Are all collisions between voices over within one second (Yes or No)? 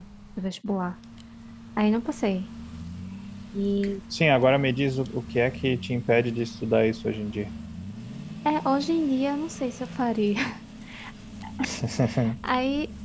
Yes